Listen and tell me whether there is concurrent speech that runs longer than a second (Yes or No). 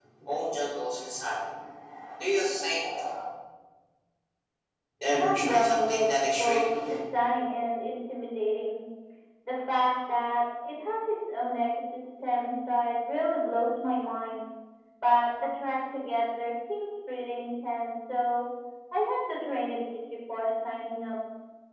Yes